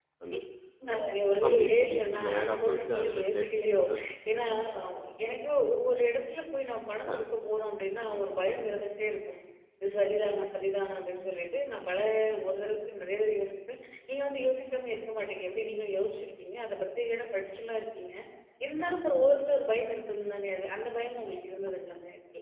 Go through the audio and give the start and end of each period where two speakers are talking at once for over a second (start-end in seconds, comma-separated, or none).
1.4-3.5